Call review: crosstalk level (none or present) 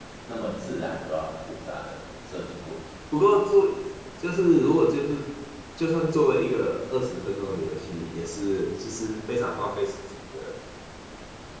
none